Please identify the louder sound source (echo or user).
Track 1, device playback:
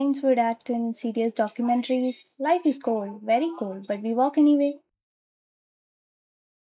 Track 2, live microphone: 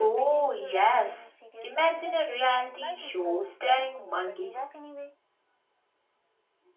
user